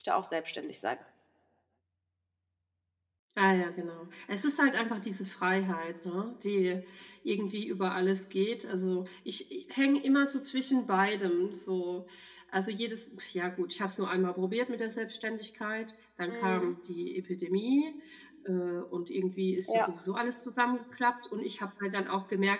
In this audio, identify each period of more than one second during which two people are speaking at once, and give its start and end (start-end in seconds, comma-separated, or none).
none